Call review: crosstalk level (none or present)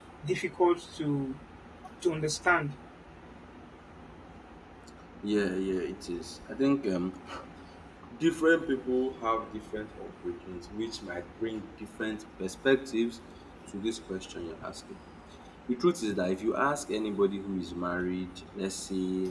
none